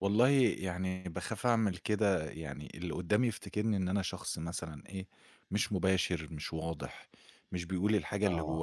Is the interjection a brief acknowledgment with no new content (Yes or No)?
Yes